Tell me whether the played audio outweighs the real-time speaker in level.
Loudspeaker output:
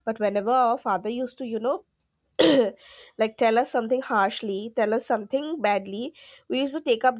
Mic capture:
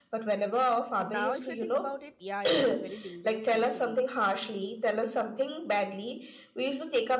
Yes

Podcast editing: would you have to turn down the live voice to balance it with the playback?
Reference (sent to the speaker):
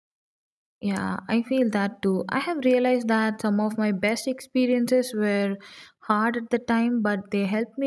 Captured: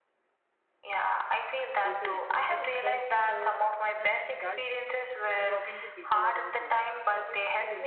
No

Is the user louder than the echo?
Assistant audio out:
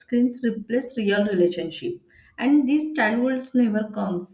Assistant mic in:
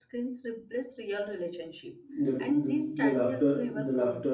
Yes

